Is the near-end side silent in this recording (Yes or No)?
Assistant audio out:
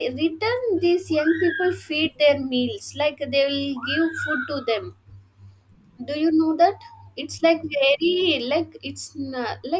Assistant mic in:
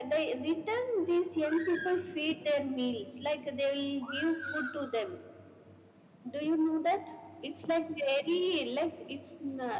Yes